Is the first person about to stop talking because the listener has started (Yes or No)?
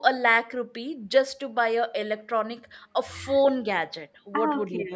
Yes